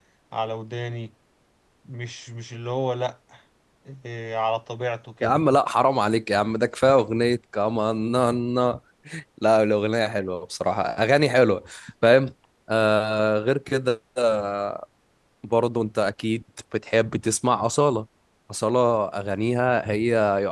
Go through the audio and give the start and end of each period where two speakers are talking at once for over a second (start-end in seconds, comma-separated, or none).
none